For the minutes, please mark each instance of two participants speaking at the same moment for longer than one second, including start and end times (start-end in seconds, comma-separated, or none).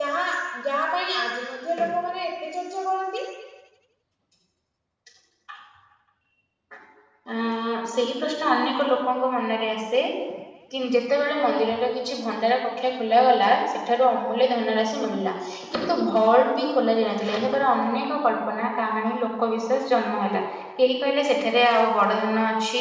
none